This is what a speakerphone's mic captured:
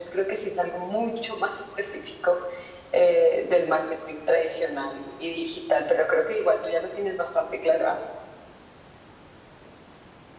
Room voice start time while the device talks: none

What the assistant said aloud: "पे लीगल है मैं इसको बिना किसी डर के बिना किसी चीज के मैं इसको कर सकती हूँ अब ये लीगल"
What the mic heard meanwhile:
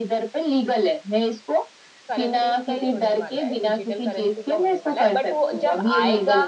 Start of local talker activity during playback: 2.1 s

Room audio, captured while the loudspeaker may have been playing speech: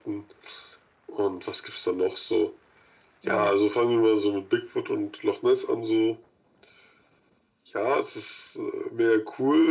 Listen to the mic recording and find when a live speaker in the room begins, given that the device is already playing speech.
3.2 s

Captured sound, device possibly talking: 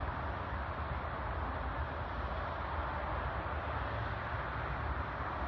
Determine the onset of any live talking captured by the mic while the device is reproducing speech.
none

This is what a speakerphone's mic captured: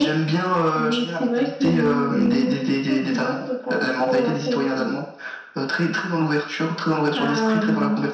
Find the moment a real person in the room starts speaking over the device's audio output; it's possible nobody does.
none

